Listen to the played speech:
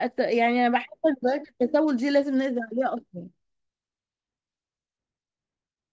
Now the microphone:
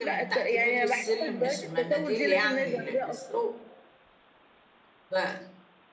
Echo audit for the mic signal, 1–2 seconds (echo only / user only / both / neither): both